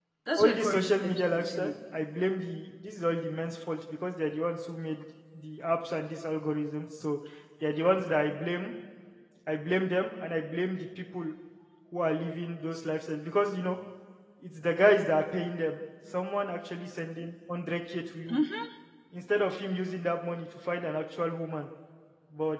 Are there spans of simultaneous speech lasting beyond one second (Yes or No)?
Yes